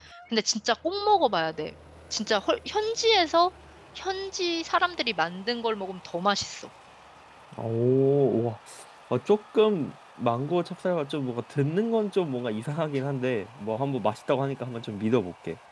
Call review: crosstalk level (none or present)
none